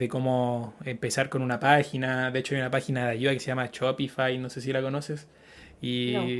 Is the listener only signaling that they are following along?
Yes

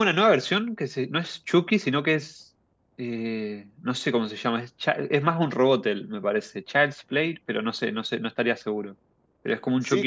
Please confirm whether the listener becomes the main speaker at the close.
Yes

